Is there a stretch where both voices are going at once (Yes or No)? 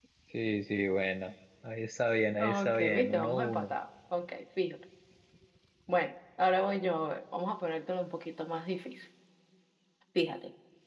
Yes